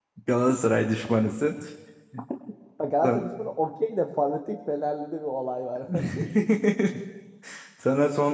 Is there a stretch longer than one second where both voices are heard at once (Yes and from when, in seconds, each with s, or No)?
No